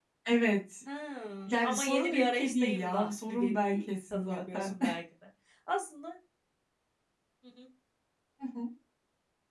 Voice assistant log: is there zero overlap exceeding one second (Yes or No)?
No